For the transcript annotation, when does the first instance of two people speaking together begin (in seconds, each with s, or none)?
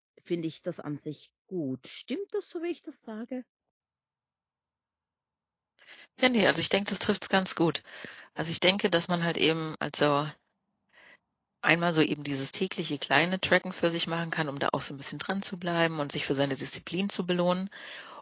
none